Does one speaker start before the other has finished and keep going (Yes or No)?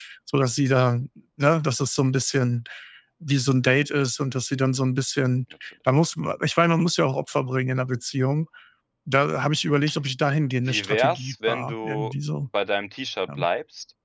Yes